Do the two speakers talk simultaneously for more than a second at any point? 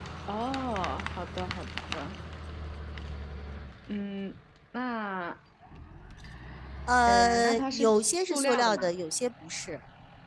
Yes, from 7.1 s

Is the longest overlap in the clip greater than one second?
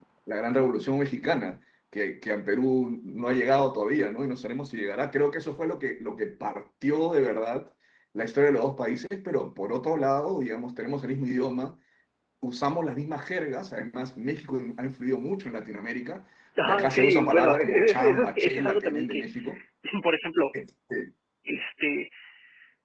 Yes, from 16.6 s

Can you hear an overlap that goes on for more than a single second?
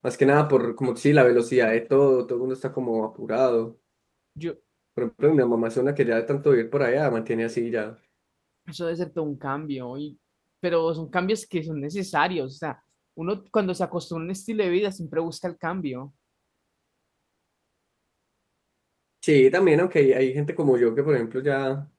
No

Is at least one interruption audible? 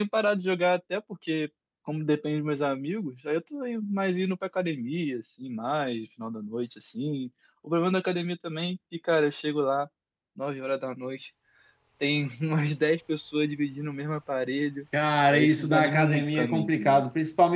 Yes, from 15.3 s

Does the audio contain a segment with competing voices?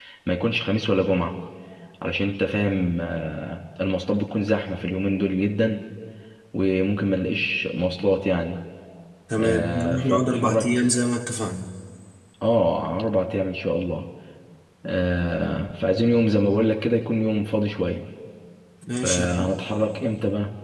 Yes, from 9.4 s

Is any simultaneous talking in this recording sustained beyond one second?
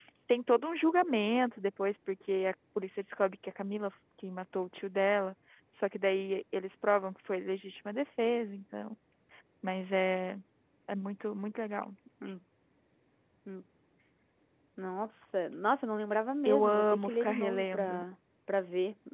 Yes, from 16.4 s

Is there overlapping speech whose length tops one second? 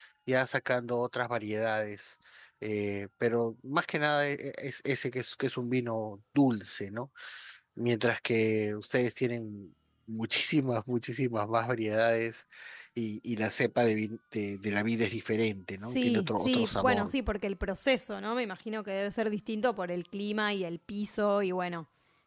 Yes, from 15.9 s

